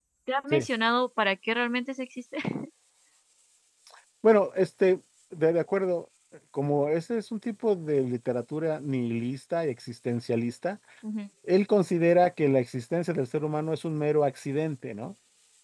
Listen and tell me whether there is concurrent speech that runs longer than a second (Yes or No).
No